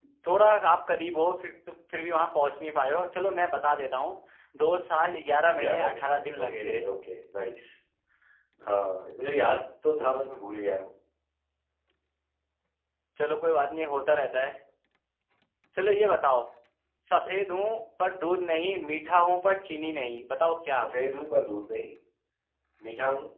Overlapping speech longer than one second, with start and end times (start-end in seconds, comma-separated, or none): 5.5-6.8